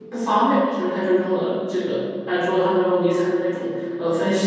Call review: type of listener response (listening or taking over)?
taking over